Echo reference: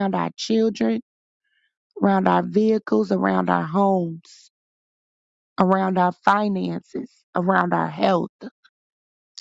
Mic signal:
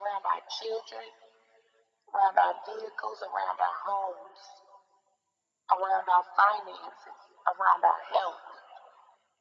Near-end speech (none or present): none